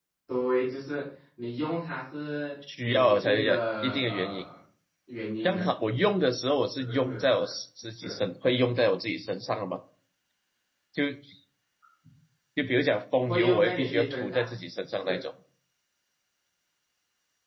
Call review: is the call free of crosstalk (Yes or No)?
No